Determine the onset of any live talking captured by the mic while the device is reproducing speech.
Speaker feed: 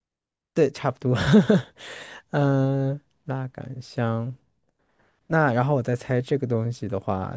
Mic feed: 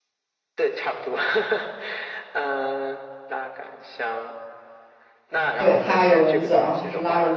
5.6 s

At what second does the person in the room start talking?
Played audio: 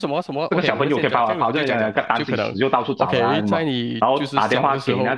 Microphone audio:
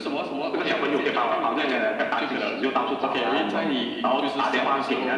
none

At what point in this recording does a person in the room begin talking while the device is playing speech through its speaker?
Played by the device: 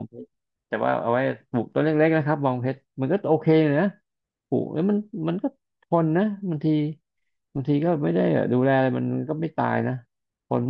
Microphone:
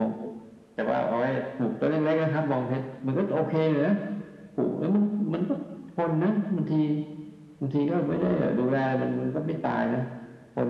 none

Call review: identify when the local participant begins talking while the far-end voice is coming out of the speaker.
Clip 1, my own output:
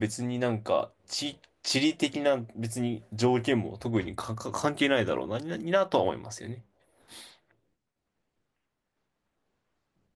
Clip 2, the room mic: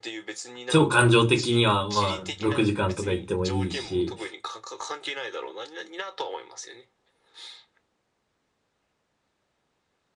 0.7 s

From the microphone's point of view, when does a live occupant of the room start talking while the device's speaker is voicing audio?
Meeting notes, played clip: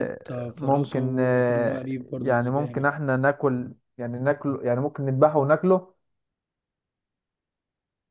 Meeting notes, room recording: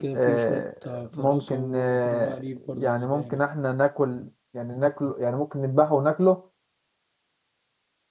none

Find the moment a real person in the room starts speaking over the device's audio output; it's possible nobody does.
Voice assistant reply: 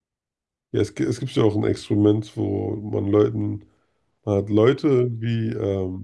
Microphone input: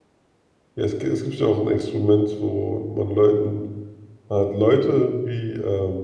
none

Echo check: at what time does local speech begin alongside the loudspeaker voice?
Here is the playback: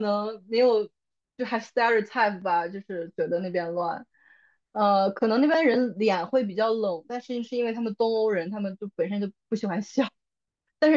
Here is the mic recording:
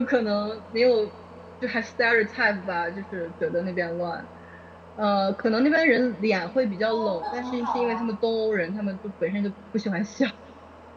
6.9 s

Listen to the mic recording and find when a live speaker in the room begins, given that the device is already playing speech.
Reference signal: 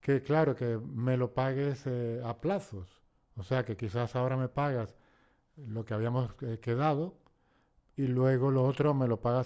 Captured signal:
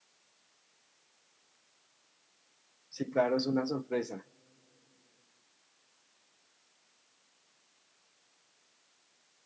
2.9 s

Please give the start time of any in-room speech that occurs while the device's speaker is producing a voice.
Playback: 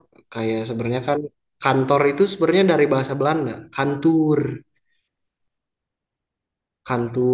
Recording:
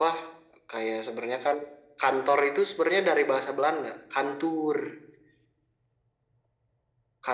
none

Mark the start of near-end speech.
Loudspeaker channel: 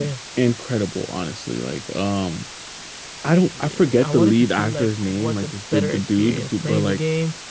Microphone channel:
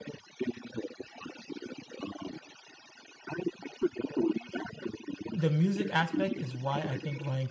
5.3 s

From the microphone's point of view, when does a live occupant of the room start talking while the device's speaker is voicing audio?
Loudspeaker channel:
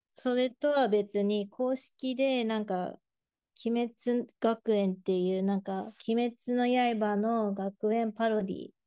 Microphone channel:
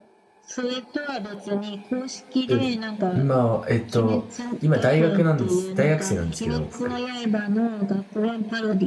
2.4 s

